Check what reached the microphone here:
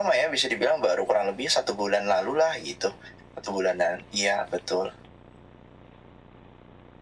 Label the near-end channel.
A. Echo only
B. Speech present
A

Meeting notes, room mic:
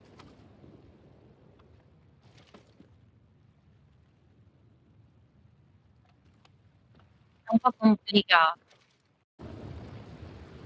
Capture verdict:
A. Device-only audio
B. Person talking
B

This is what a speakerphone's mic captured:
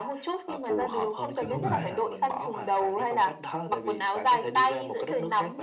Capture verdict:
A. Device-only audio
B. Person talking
B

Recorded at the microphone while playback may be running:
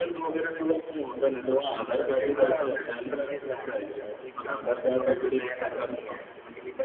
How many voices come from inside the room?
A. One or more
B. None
A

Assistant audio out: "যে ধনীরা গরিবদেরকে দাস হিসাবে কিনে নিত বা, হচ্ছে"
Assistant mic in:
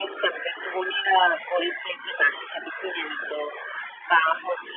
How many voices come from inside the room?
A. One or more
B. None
B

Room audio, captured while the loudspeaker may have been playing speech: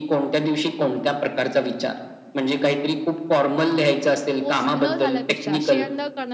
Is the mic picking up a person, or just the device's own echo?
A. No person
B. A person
B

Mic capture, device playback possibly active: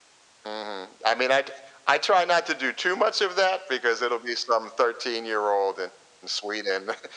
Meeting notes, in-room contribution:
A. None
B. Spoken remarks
A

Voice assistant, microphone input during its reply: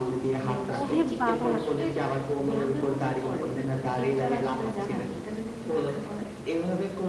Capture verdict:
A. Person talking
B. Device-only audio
A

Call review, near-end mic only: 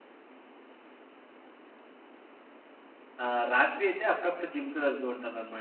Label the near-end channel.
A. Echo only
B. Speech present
B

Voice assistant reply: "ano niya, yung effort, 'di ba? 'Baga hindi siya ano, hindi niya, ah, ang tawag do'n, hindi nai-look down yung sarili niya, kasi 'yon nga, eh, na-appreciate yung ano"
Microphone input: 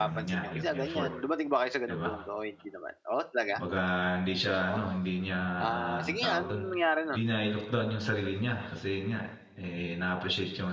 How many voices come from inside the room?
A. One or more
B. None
A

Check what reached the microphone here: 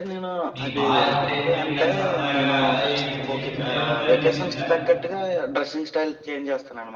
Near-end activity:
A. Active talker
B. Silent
A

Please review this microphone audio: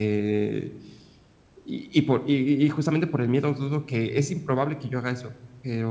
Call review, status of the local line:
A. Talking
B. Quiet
A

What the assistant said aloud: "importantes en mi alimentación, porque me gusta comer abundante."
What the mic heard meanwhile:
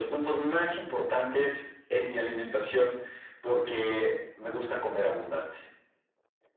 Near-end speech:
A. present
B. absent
B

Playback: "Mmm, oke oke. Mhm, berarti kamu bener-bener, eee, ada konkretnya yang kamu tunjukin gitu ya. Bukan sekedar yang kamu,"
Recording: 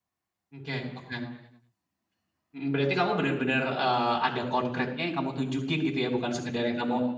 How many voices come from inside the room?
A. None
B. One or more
A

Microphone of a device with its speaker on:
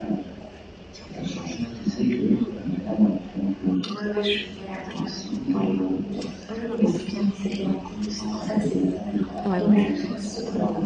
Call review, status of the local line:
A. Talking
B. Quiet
A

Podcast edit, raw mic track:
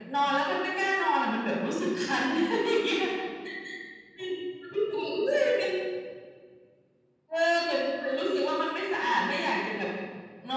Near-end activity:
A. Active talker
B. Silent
A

